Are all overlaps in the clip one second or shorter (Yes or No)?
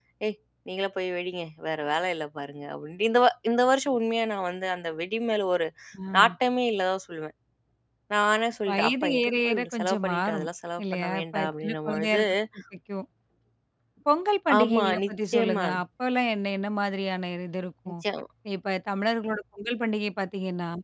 No